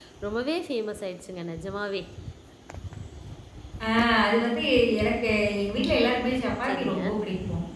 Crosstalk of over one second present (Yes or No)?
No